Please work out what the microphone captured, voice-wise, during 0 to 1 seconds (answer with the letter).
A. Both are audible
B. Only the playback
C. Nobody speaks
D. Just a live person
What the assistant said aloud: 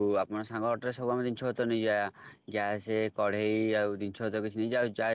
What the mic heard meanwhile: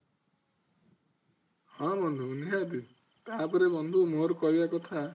C